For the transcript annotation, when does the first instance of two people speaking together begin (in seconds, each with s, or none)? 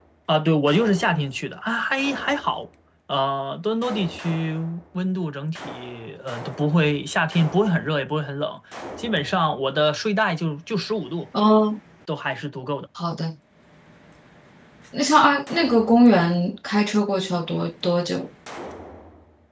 none